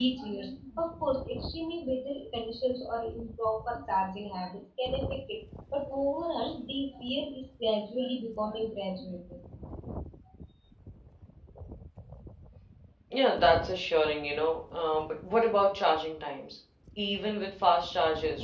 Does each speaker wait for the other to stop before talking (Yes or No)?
Yes